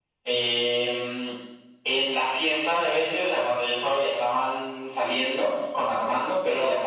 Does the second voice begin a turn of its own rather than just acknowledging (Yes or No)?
No